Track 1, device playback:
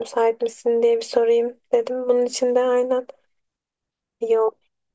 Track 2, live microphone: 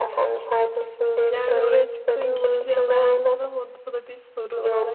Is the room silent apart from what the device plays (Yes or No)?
No